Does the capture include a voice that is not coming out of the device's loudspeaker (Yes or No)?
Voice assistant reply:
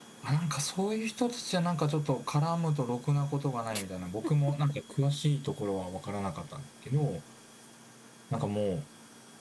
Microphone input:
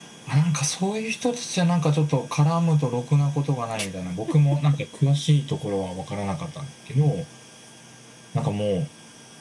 No